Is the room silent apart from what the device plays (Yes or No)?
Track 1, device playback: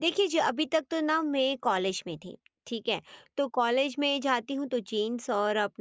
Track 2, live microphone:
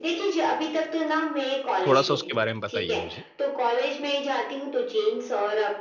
No